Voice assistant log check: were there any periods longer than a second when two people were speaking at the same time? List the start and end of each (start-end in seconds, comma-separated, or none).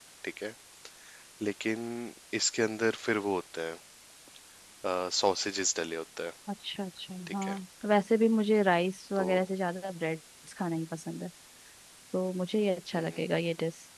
none